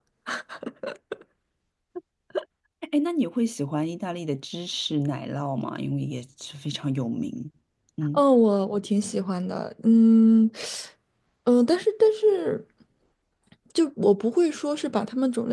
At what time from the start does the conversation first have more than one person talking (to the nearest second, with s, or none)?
none